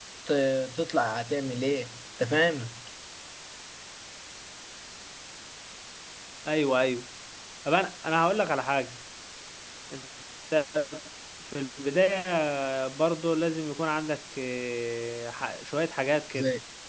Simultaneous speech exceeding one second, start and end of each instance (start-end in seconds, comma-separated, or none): none